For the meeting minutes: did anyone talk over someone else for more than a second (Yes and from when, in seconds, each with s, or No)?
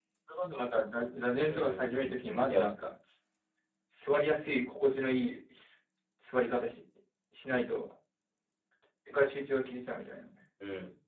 Yes, from 1.4 s